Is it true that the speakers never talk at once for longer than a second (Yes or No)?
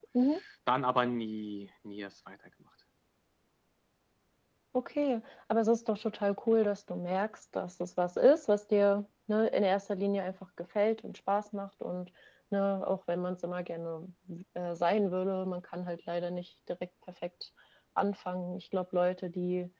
Yes